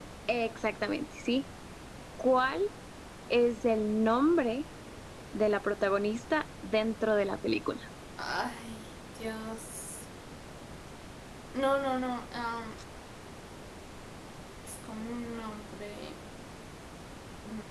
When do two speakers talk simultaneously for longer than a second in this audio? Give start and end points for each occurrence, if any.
none

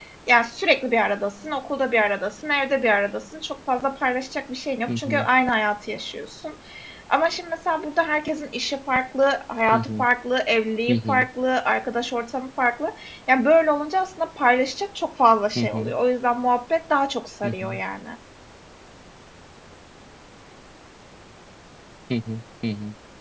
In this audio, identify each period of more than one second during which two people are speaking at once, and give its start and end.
none

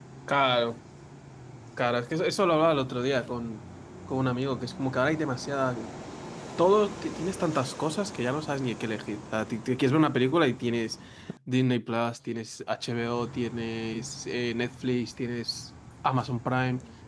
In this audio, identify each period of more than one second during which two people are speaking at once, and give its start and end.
none

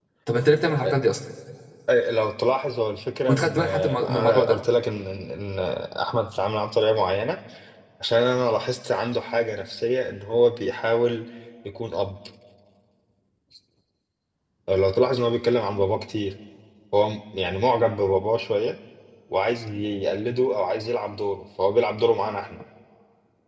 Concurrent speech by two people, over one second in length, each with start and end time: 3.3-4.6

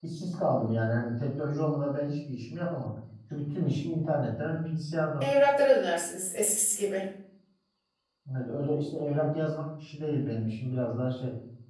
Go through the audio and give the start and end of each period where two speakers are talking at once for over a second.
none

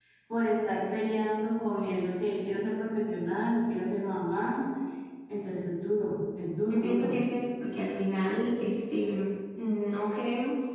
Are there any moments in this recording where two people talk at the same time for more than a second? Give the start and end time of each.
none

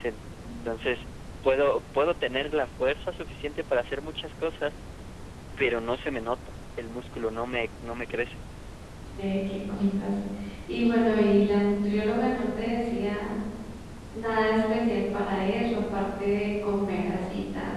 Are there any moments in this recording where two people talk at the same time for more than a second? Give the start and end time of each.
none

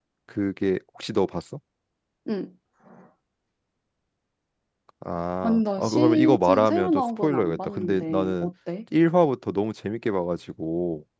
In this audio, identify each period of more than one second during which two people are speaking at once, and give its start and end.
5.4-8.5

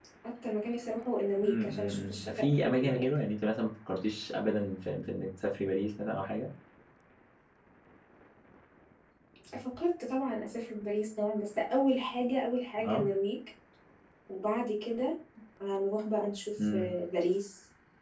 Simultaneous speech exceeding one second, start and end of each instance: 1.4-3.0

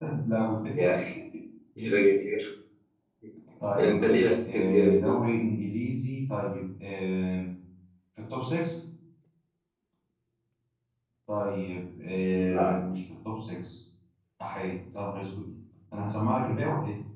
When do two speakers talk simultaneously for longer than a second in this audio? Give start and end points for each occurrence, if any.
3.8-5.2

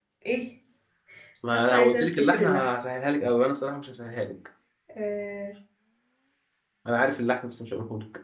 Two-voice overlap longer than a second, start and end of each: 1.5-2.8

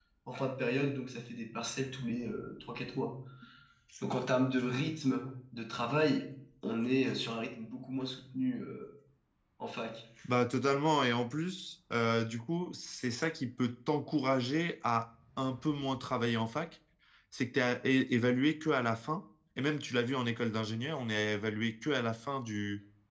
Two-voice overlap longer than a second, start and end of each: none

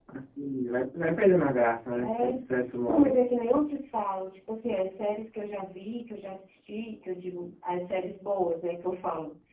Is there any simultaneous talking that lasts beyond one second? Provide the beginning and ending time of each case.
none

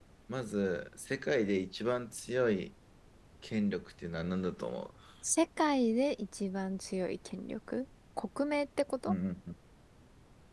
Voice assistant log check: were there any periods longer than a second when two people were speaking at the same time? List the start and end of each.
none

